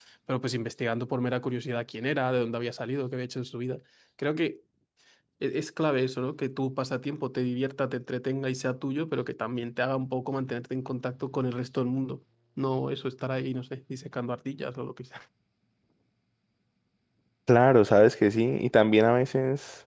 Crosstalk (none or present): none